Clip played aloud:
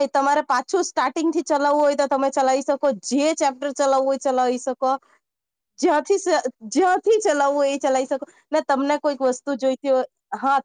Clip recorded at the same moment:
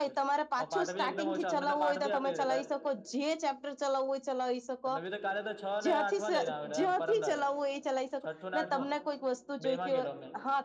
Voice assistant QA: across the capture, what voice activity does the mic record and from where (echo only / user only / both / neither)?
both